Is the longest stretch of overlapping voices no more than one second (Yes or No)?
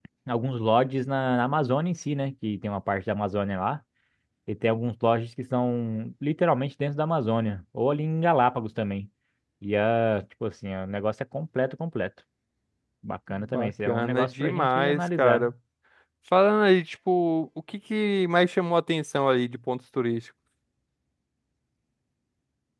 No